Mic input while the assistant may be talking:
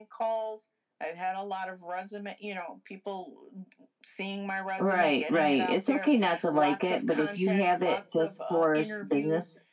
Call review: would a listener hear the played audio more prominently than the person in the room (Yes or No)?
No